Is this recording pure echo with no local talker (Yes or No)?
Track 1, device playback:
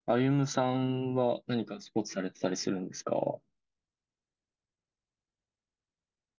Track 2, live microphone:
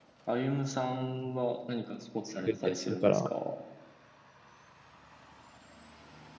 No